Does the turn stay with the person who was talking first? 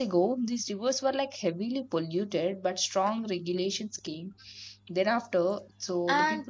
Yes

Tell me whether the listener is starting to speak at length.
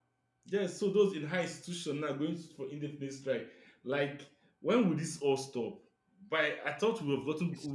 No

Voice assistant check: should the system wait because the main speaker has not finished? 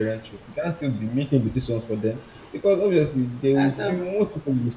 Yes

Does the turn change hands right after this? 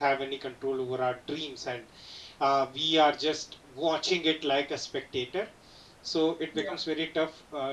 No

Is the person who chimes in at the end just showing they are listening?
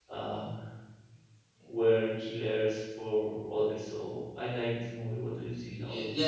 No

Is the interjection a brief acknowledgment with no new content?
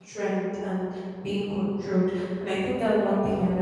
Yes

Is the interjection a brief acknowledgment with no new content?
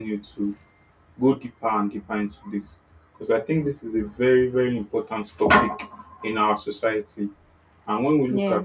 Yes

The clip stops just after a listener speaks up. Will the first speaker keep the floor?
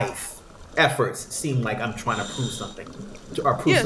No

